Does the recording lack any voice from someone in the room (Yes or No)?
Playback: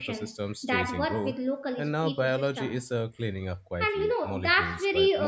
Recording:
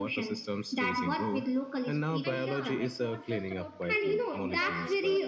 No